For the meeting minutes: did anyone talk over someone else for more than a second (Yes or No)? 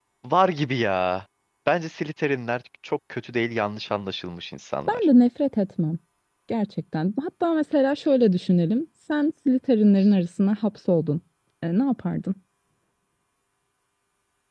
No